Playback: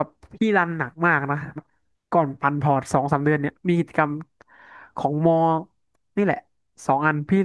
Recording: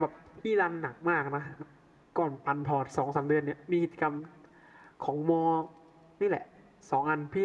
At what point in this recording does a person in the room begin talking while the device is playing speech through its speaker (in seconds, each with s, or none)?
none